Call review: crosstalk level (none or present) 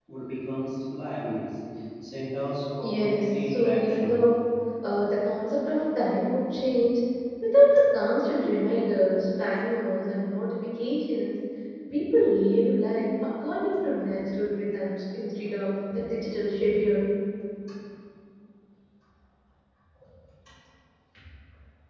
present